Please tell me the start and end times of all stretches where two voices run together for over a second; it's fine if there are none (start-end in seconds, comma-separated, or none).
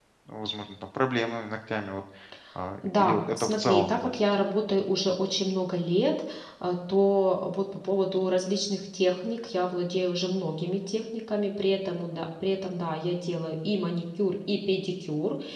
2.8-4.2